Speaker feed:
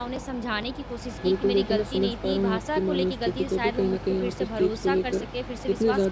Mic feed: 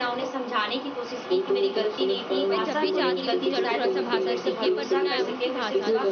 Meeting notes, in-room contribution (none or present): present